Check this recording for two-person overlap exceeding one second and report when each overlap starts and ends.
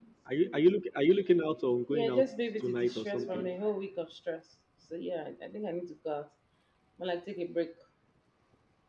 1.9-3.5

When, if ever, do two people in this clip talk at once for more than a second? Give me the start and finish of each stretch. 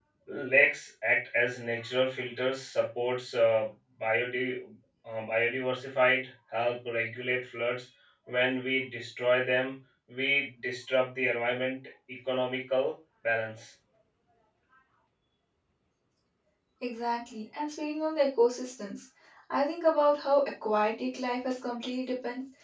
none

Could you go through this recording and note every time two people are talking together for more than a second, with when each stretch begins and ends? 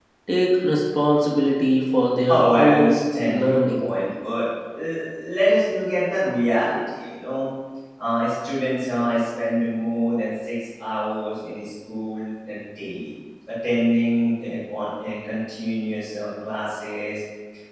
2.3-3.8

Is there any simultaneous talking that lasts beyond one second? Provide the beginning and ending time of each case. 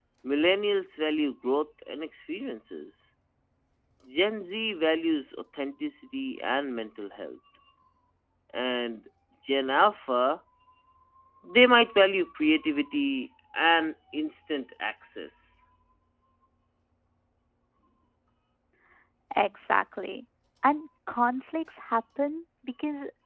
none

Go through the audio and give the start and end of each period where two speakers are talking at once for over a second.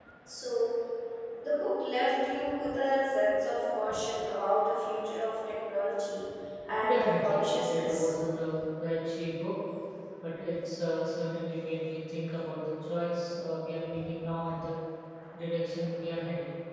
6.8-8.1

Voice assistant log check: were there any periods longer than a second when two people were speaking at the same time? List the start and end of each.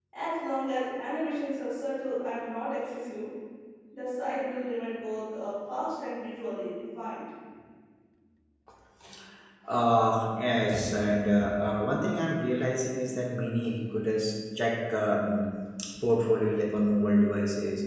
none

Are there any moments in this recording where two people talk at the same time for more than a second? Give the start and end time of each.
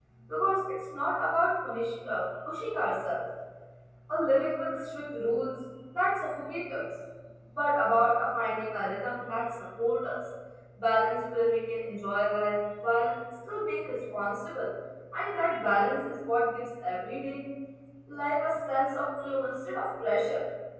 none

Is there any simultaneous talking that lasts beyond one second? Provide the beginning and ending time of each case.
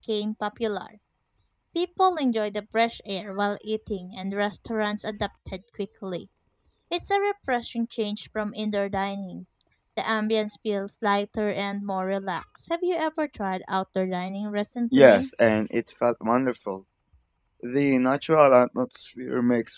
none

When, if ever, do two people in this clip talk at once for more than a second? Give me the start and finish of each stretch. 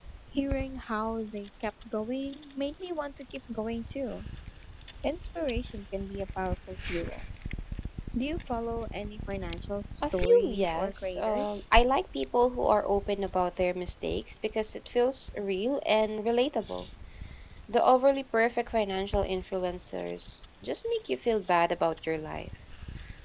10.1-11.6

